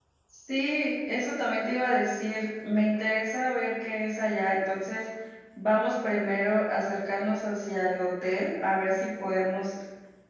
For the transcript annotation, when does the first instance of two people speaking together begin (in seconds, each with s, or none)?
none